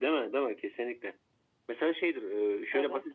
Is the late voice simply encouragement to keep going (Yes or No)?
Yes